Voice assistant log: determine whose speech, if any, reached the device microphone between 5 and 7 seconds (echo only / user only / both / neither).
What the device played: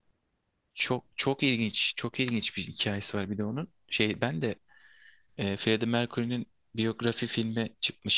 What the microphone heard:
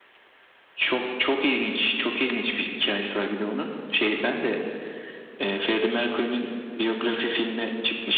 echo only